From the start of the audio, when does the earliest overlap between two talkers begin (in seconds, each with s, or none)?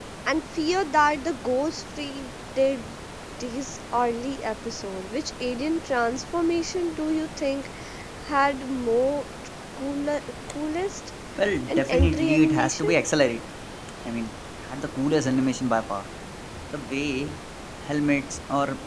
11.7 s